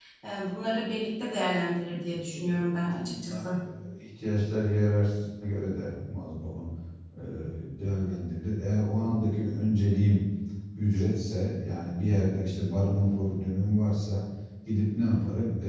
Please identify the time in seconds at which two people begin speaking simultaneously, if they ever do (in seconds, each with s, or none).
2.1 s